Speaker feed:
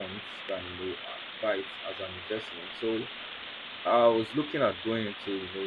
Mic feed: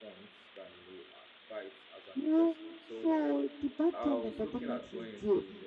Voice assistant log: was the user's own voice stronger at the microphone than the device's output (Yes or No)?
Yes